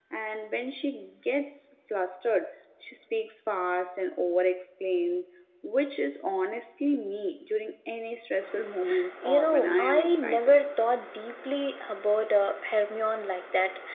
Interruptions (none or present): present